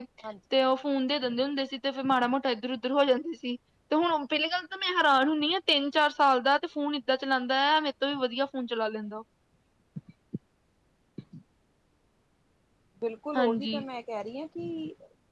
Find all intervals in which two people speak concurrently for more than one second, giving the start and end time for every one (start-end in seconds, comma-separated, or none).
none